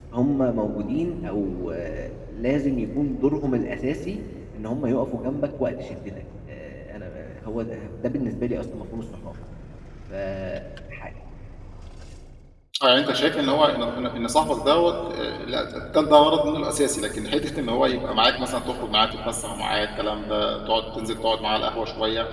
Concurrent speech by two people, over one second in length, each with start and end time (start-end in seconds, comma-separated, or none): none